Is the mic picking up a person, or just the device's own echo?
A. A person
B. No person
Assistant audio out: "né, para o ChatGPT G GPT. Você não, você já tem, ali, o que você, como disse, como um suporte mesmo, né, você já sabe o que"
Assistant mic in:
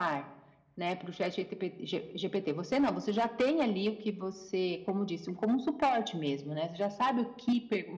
B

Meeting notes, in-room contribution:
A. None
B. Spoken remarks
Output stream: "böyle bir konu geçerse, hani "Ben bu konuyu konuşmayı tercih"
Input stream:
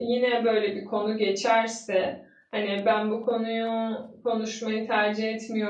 A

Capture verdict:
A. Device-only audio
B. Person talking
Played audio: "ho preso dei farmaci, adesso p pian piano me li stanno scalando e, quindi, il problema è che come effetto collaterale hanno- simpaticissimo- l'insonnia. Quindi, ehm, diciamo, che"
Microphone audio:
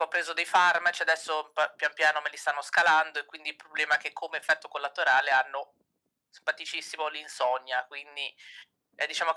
A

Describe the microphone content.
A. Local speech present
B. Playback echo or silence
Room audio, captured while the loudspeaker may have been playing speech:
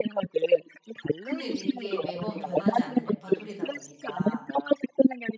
A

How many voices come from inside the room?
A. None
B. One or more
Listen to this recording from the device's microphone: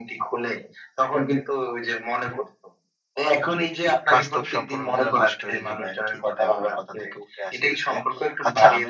B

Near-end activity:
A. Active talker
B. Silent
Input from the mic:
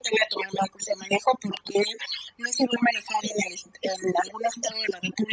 B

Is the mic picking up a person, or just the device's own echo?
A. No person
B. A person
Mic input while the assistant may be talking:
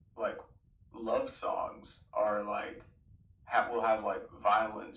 A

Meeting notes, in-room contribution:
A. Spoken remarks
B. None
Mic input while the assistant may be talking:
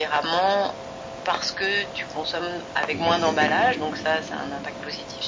A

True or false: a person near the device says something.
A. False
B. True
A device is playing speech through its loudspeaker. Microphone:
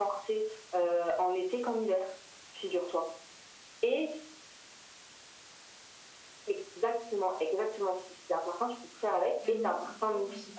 B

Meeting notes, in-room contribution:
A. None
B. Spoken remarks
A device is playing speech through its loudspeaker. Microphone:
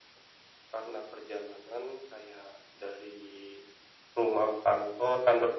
A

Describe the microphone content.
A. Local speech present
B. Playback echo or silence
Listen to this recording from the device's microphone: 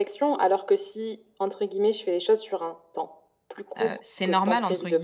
A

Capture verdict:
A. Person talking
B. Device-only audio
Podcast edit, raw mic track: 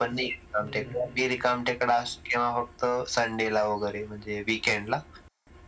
A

